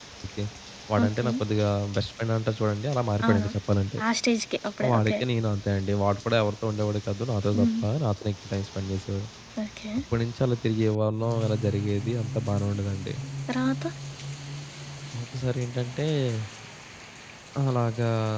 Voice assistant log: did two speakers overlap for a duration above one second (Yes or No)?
No